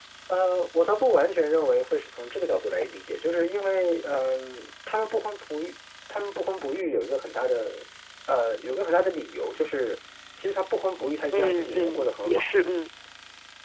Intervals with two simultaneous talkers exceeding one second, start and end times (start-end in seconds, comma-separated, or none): 11.3-12.5